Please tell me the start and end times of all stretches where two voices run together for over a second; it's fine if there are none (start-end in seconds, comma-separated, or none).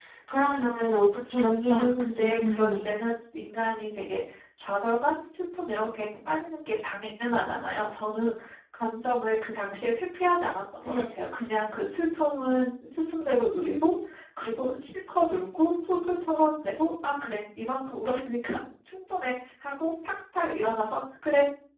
1.7-3.0